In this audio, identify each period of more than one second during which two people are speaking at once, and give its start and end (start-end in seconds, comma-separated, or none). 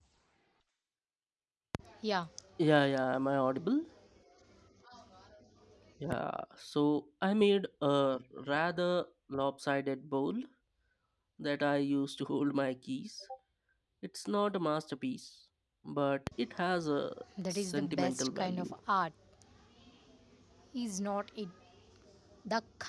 17.5-18.7